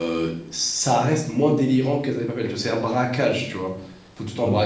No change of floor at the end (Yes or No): Yes